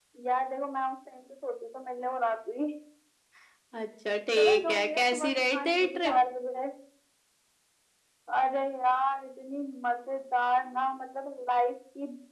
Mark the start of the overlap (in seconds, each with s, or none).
4.4 s